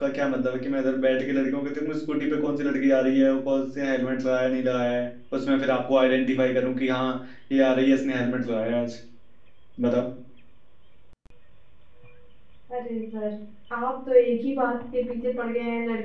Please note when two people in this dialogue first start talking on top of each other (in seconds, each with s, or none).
none